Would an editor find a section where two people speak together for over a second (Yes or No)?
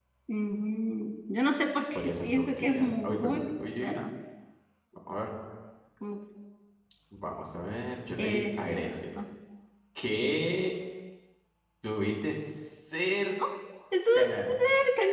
Yes